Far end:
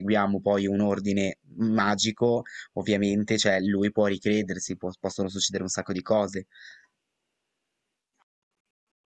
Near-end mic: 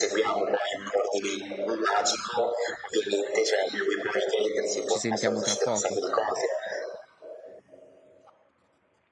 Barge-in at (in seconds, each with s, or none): 4.8 s